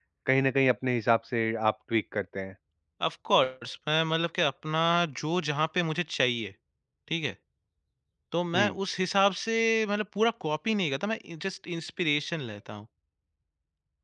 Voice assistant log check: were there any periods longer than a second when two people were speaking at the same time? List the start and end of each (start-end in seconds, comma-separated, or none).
none